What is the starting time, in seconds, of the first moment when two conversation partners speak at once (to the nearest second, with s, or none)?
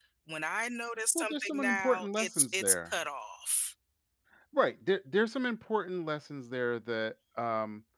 1 s